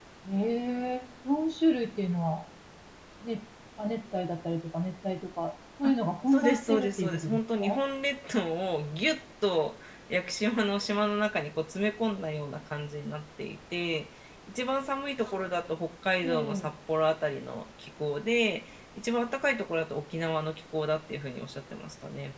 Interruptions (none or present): present